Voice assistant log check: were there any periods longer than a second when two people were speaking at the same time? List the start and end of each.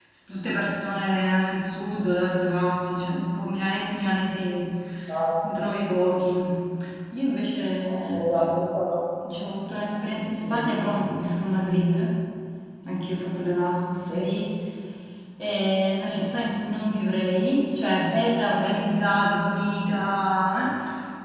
none

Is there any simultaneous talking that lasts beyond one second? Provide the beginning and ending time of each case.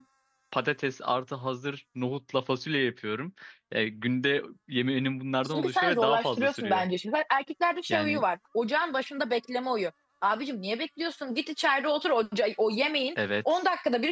5.5-6.8

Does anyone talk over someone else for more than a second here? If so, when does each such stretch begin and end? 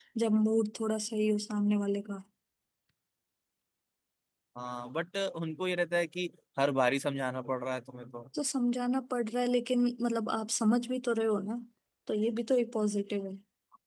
none

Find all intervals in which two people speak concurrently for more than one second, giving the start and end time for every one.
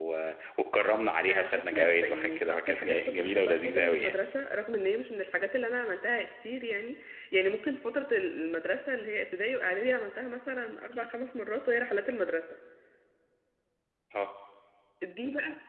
1.3-4.1

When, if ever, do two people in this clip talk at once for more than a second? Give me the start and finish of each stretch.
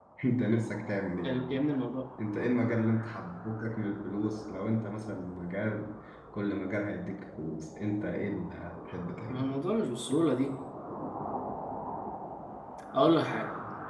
none

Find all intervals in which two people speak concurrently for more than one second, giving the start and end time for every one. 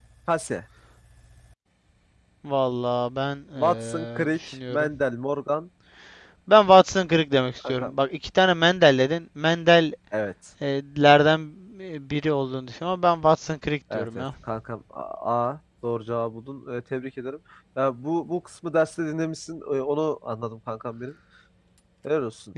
3.6-4.9

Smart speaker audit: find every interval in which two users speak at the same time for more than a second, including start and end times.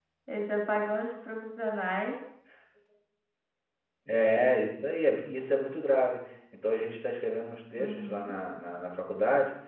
none

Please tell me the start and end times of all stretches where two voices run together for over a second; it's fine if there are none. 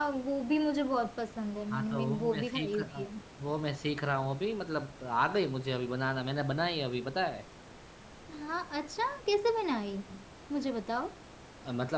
1.7-3.1

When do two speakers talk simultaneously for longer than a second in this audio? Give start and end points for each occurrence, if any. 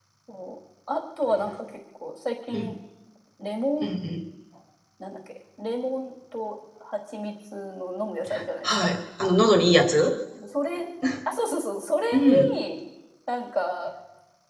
none

